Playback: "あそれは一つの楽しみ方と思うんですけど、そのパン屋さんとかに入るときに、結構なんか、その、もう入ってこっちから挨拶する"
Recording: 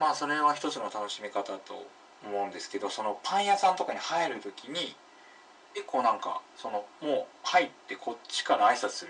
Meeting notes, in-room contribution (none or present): none